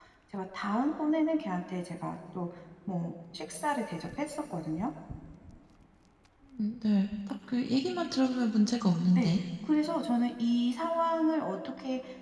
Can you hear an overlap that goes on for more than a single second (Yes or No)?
No